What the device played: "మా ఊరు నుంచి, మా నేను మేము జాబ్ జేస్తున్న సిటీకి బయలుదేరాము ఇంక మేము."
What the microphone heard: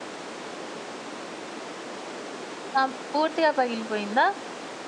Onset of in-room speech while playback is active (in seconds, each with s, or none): 2.8 s